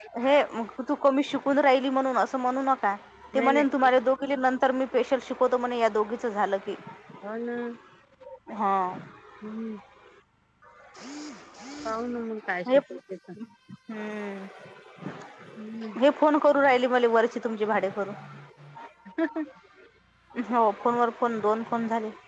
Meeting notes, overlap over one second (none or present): none